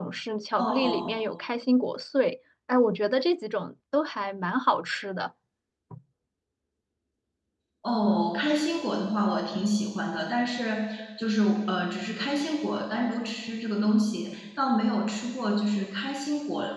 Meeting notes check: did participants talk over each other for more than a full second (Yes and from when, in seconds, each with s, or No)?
No